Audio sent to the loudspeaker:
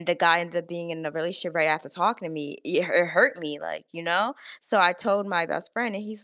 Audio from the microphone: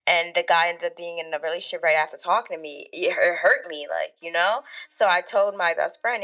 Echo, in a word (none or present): present